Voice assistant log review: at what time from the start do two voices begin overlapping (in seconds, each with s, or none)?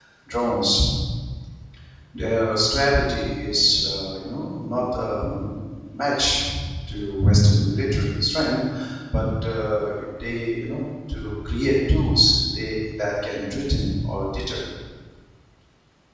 none